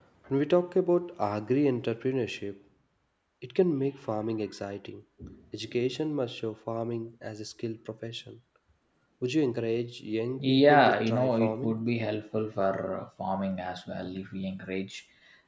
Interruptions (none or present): present